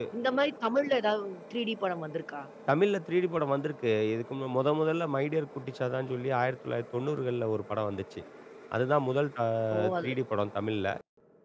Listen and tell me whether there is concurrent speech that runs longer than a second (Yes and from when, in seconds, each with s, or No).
No